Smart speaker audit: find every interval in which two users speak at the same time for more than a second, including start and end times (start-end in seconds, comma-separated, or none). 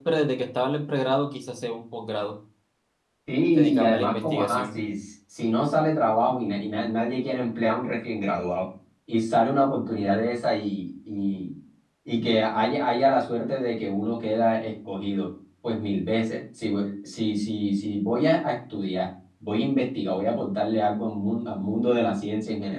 3.5-4.8